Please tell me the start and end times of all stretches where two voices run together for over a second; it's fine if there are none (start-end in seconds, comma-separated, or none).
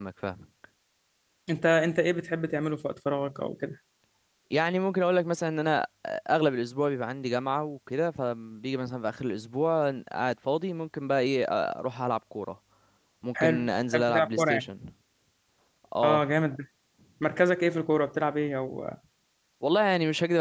13.4-14.6